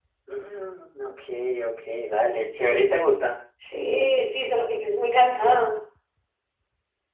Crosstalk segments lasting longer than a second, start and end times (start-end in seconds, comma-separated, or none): none